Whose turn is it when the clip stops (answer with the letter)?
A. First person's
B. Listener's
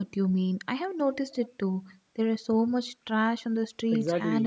B